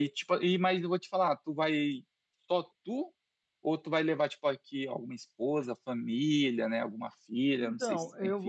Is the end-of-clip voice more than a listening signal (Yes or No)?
Yes